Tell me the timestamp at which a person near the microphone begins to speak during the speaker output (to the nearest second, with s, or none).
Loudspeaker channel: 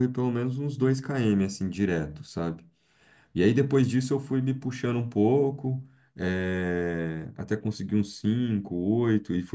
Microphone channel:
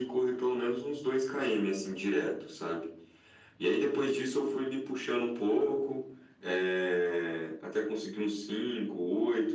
none